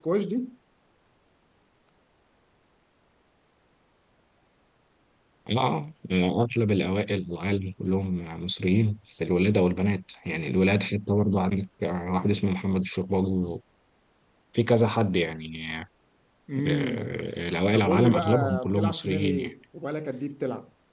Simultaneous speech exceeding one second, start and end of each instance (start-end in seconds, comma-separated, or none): 17.7-19.5